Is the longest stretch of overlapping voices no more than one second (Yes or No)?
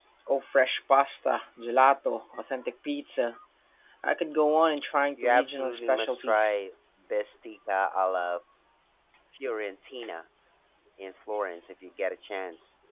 No